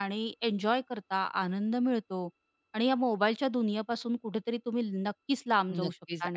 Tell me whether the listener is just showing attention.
No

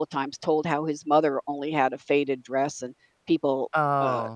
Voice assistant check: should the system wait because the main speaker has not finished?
Yes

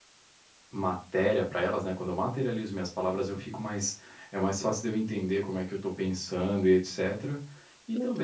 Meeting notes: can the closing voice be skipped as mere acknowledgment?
Yes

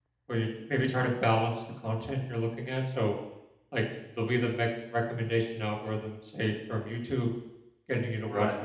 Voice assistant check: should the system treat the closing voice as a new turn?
No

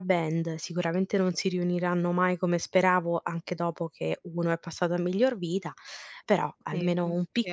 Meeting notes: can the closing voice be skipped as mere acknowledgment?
No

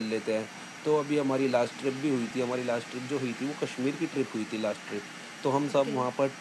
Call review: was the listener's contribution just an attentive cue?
Yes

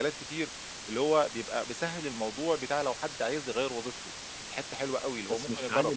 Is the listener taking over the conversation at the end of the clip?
Yes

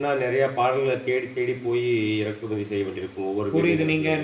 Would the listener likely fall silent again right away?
No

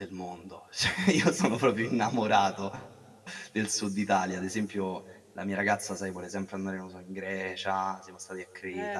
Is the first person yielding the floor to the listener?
Yes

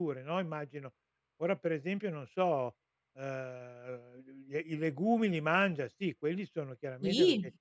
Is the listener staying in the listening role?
Yes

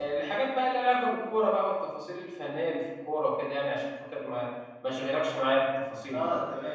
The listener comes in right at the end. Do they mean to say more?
Yes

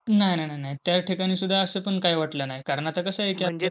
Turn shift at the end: No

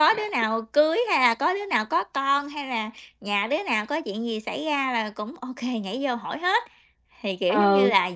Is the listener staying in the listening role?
No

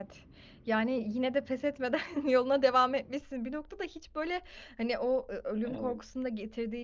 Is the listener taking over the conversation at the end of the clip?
No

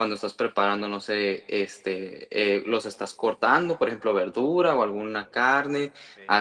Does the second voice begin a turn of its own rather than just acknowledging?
No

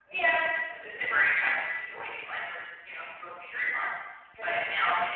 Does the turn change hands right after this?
No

